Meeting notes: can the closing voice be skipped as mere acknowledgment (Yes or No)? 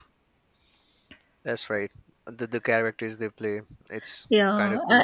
No